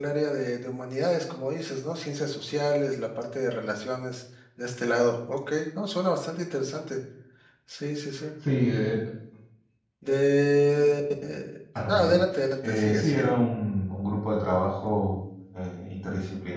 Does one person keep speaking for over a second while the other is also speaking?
Yes, from 11.8 s

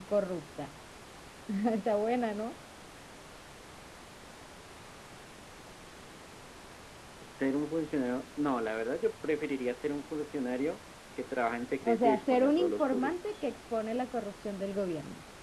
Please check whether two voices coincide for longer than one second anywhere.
Yes, from 11.8 s

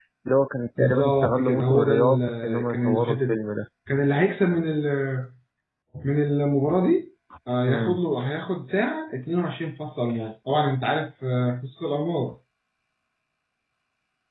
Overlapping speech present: Yes, from 0.8 s

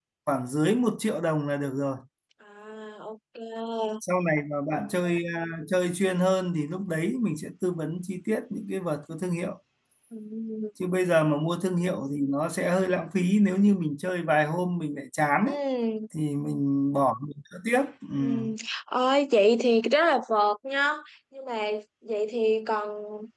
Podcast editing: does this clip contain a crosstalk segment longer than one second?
No

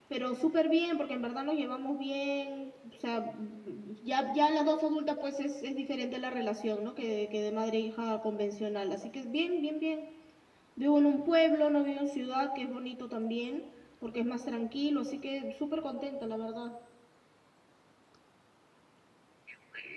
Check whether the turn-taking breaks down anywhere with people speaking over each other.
No

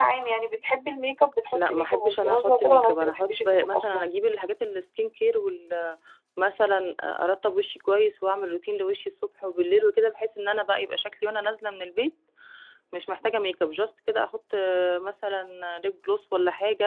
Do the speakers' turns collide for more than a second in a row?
Yes, from 1.5 s

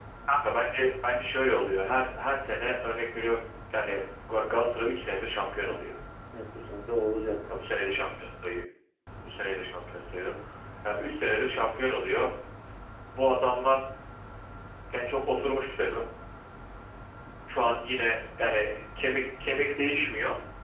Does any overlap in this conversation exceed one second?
No

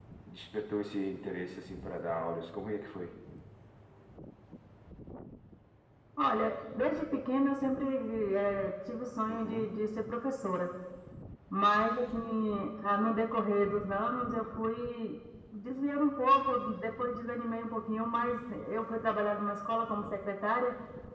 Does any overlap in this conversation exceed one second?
No

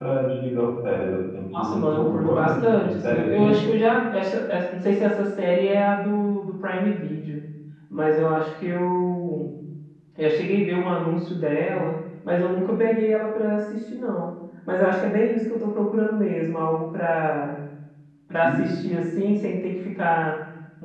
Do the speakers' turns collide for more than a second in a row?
Yes, from 1.6 s

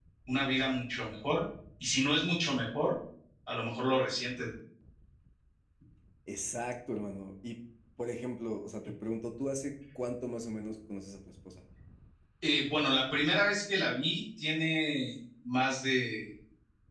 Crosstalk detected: No

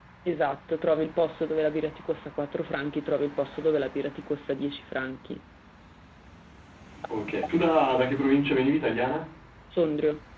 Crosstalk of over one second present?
No

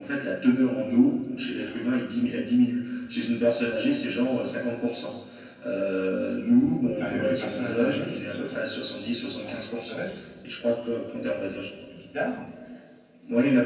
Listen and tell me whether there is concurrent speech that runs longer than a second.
Yes, from 7.0 s

